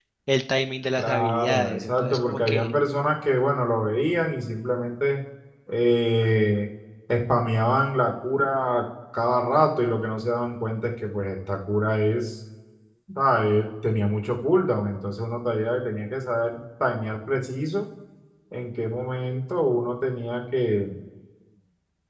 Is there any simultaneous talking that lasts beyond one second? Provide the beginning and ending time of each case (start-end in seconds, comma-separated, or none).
1.0-2.7